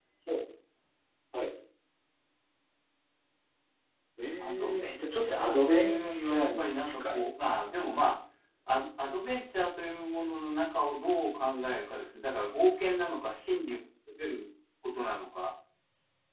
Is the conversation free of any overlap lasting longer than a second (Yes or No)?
No